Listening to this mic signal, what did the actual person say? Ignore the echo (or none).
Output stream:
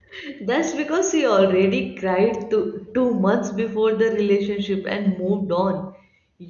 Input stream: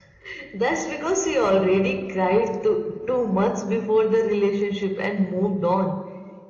none